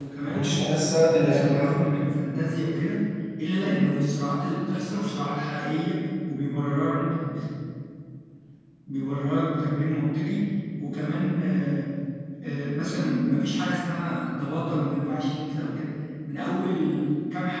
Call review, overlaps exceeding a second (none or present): present